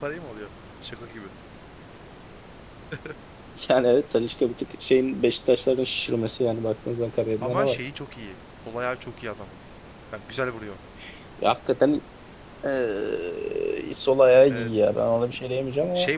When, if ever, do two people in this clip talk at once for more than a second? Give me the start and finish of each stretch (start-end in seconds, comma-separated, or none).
none